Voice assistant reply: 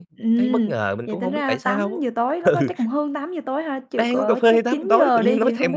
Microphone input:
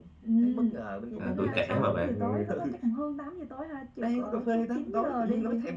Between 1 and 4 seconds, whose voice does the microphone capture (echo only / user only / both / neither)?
both